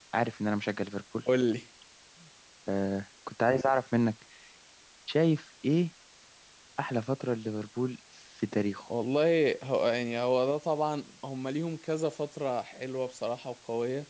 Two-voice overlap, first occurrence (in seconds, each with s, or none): none